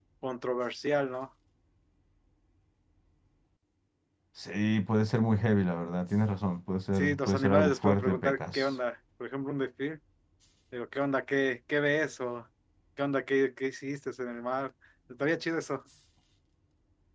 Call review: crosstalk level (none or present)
present